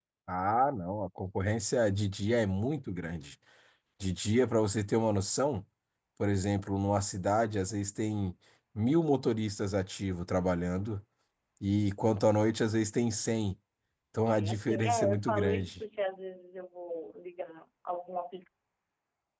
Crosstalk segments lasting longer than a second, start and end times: 14.3-15.8

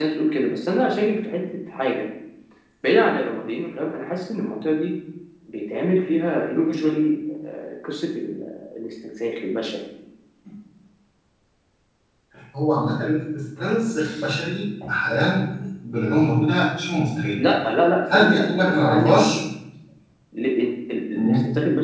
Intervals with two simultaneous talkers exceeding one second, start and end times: 18.1-19.4

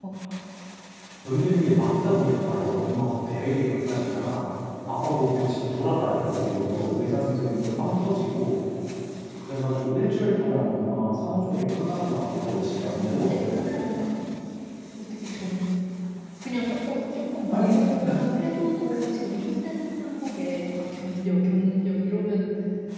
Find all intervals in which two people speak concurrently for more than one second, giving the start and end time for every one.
12.4-13.7

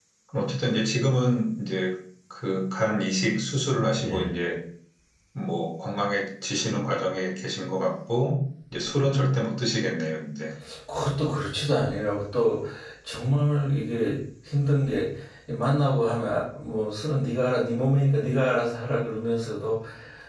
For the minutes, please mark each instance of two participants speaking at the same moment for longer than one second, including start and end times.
none

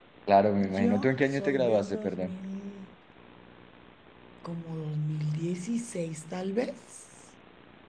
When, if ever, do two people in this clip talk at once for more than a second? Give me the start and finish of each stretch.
0.6-2.3

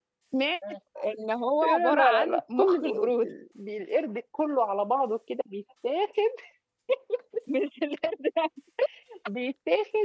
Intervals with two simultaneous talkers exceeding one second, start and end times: 1.6-3.3

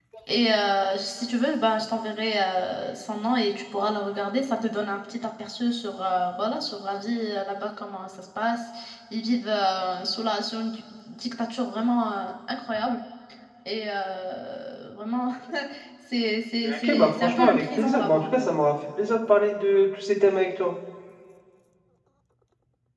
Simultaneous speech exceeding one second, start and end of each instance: 16.6-18.5

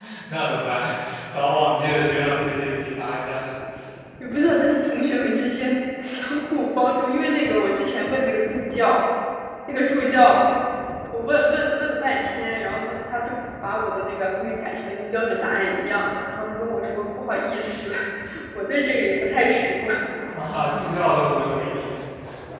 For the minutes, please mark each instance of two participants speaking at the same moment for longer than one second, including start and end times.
none

